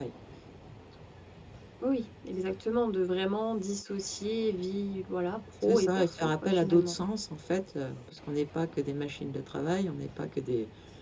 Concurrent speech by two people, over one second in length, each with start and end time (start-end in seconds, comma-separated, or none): 5.6-7.0